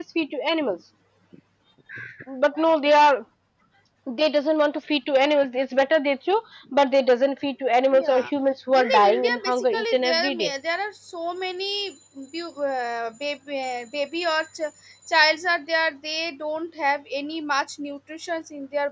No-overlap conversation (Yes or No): No